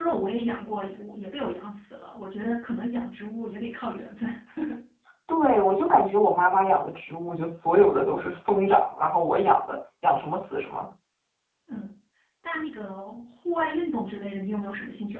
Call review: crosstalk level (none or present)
none